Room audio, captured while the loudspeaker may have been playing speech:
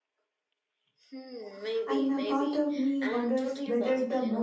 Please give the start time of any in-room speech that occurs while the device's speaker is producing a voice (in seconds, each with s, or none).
1.8 s